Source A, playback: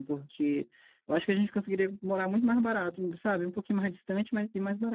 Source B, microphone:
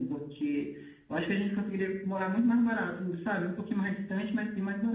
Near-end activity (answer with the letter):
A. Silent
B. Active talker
A